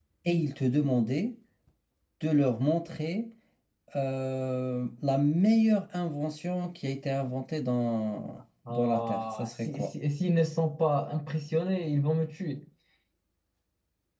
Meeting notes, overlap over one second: present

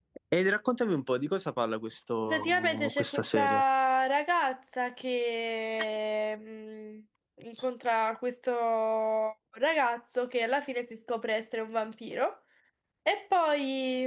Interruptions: present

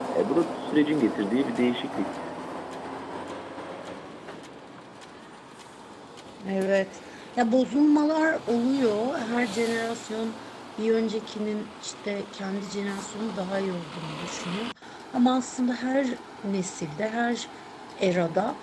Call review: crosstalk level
none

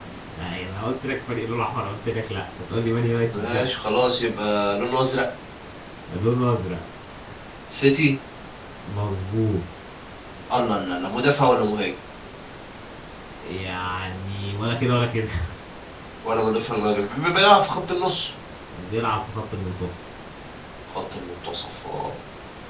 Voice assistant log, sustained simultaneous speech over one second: none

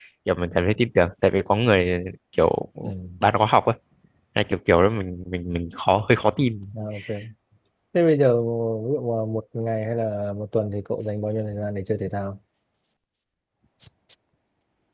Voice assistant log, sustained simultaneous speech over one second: none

